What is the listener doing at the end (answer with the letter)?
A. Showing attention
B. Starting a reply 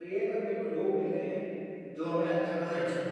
A